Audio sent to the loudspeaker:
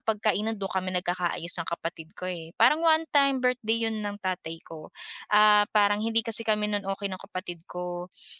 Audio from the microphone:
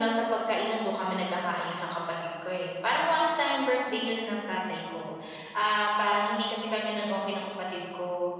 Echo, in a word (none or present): present